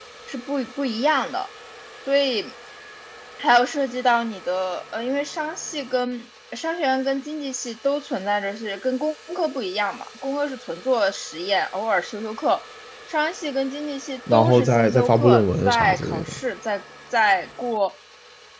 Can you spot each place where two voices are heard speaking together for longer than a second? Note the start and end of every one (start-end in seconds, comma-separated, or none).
14.3-16.4